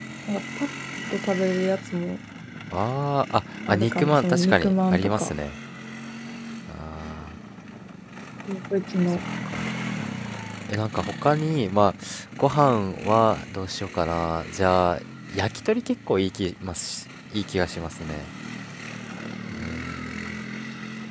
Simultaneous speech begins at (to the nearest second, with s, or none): 4 s